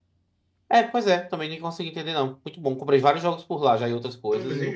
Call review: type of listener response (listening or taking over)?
taking over